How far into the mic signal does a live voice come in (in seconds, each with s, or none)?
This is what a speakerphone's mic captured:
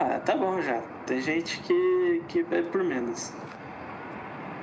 none